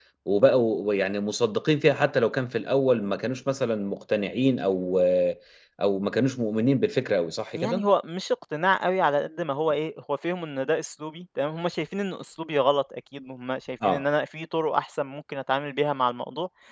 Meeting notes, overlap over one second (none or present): none